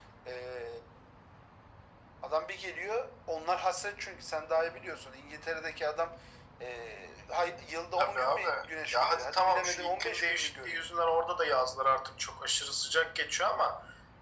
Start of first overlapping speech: 8.0 s

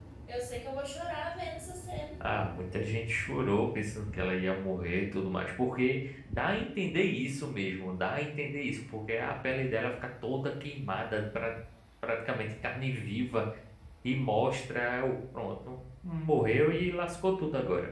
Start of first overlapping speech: none

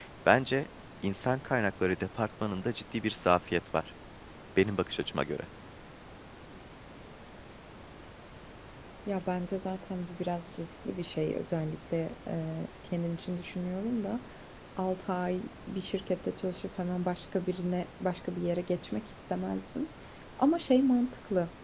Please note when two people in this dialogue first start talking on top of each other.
none

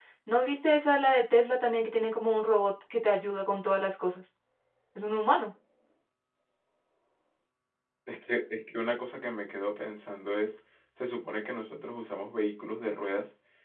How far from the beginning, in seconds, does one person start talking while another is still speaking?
none

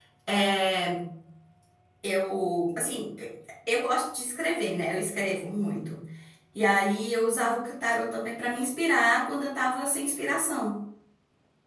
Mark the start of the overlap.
none

